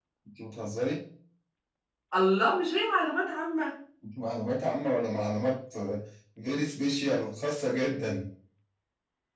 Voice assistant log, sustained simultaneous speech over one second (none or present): none